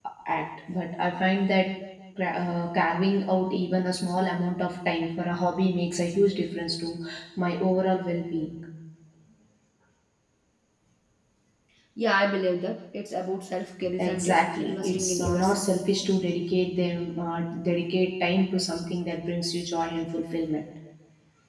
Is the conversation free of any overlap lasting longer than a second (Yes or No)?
No